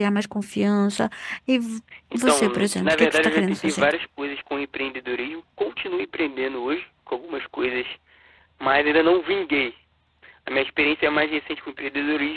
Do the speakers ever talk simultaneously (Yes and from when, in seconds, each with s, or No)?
Yes, from 2.3 s